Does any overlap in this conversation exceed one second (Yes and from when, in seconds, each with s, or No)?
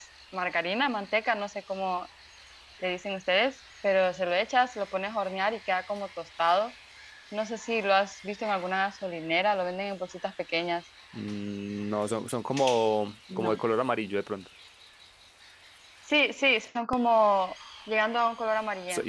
No